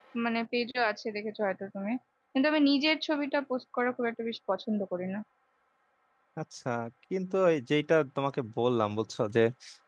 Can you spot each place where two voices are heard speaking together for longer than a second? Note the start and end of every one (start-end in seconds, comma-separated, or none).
none